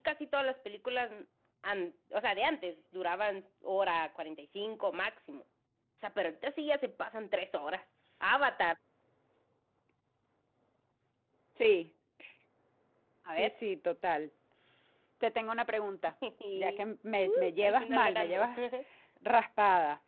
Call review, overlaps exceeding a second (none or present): present